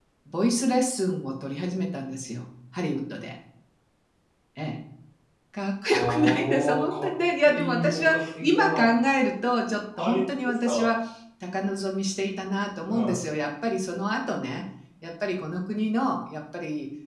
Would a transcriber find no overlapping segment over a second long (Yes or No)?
No